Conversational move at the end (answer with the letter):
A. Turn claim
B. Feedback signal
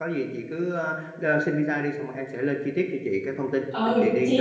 A